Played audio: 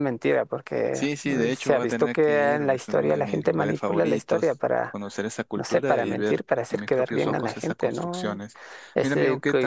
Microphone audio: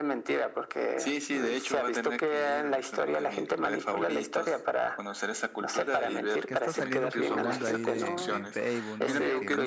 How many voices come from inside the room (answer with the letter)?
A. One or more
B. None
A